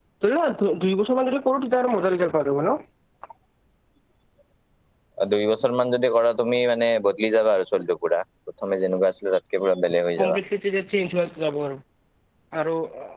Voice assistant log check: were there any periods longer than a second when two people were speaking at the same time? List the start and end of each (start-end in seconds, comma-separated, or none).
none